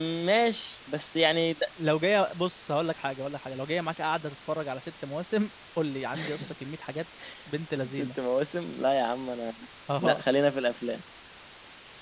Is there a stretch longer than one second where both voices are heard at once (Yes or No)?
No